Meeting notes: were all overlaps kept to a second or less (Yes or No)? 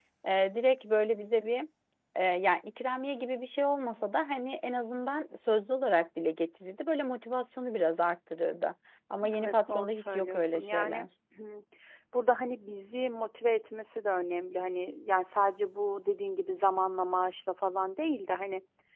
No